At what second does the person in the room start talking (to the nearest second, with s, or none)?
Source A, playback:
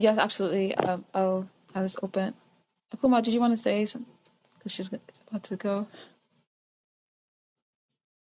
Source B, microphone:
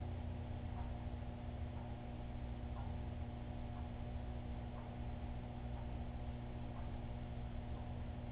none